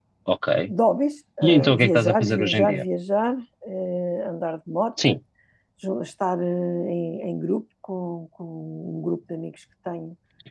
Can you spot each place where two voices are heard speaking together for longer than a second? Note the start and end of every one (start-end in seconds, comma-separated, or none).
1.4-2.8